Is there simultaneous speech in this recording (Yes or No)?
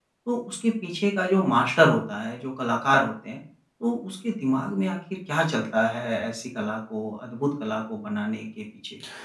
No